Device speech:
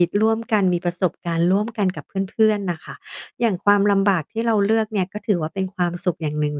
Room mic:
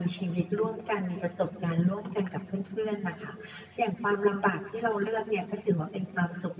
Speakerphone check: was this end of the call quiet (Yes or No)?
Yes